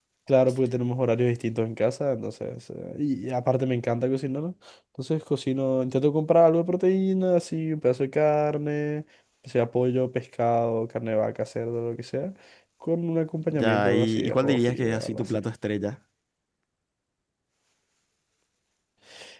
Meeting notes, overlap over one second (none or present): present